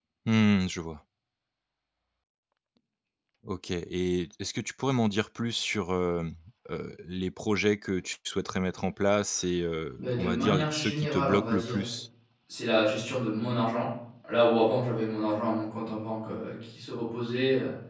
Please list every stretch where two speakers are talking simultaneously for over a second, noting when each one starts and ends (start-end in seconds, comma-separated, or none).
10.0-11.8